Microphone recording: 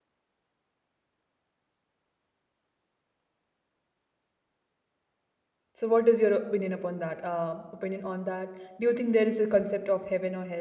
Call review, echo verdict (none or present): none